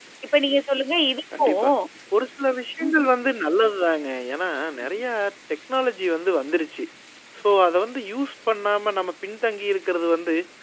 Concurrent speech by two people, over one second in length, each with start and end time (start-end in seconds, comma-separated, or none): none